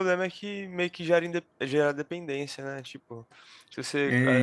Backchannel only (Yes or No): Yes